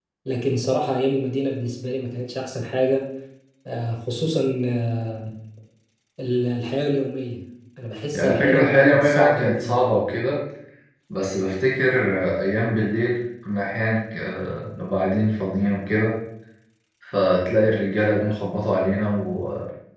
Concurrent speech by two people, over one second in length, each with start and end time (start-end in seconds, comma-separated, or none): 8.1-10.0